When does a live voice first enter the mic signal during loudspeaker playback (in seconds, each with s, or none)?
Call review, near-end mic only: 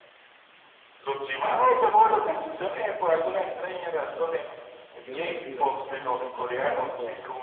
5.0 s